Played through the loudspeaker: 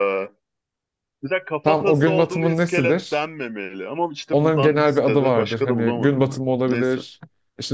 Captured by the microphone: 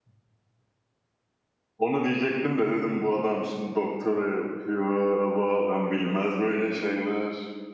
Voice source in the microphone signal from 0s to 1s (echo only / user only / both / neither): neither